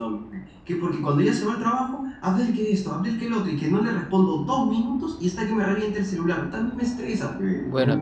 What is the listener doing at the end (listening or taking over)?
taking over